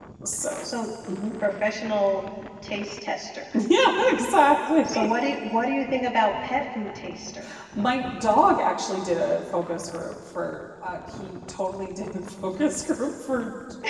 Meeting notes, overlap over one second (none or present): none